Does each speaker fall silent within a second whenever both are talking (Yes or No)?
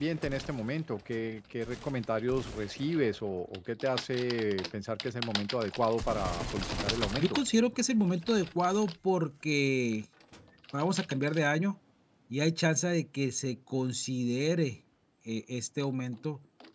Yes